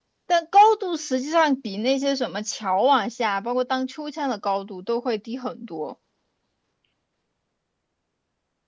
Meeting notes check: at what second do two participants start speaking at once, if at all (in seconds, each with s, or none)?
none